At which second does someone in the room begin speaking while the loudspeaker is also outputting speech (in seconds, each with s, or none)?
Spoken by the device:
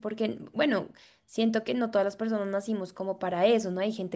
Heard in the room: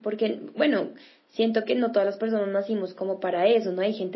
none